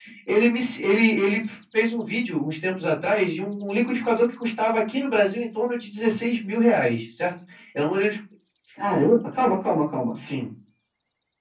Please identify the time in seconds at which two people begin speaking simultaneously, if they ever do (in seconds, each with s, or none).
none